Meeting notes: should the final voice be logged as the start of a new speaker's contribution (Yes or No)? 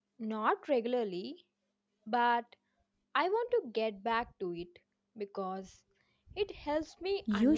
Yes